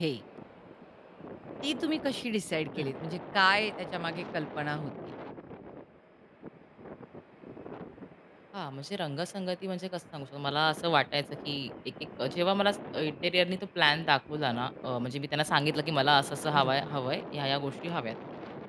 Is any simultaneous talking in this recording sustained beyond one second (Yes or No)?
No